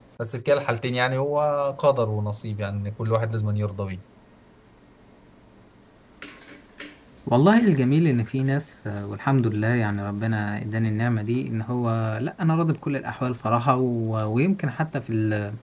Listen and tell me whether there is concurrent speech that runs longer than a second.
No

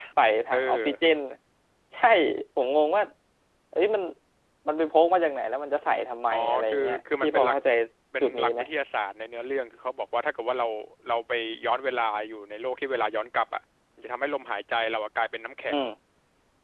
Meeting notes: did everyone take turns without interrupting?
No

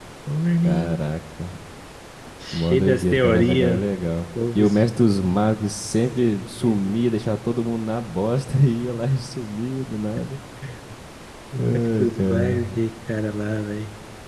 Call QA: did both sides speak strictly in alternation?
No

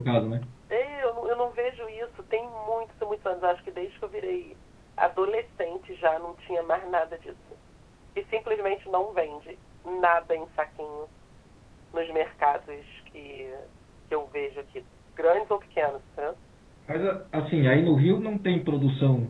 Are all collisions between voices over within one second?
Yes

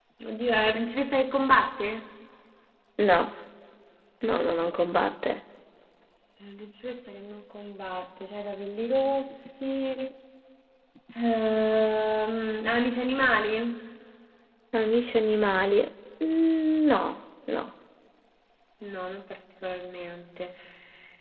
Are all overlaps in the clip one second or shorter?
Yes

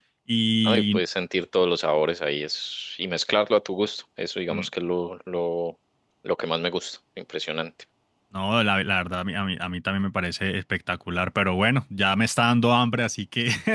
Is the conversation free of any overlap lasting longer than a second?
Yes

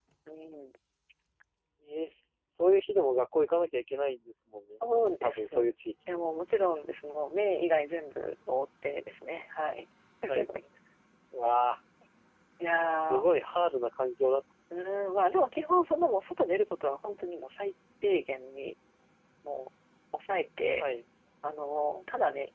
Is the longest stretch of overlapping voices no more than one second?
Yes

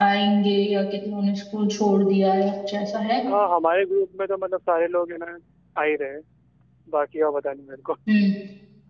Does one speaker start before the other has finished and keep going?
No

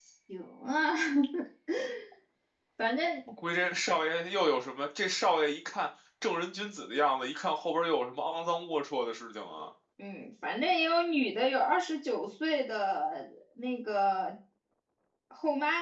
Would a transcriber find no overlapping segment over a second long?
Yes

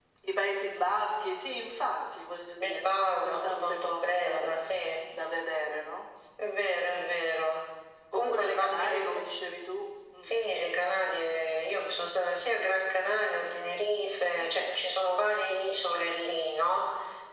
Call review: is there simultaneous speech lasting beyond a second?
Yes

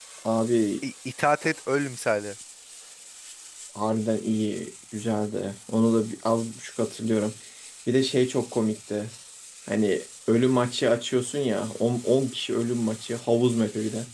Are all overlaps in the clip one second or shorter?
Yes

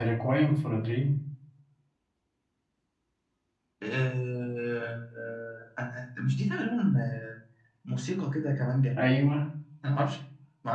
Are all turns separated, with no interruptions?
Yes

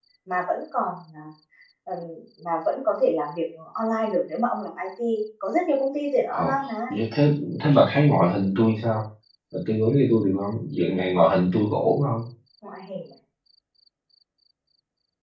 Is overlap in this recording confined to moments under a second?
Yes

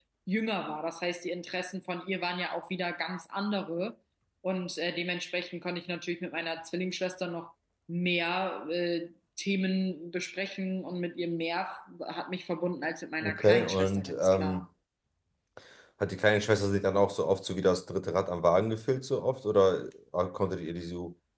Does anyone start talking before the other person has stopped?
Yes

